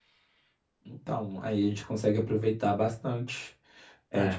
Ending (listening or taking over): taking over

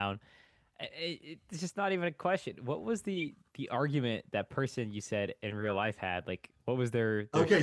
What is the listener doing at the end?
taking over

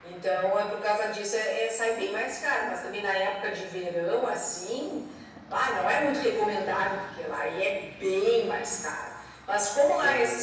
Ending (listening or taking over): listening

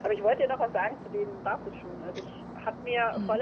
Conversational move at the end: listening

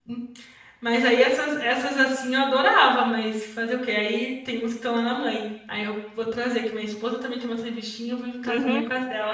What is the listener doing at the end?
taking over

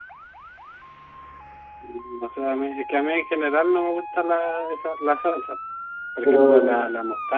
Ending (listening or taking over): listening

